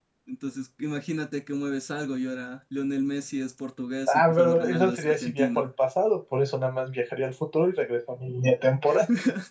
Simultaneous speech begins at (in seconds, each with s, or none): 4.1 s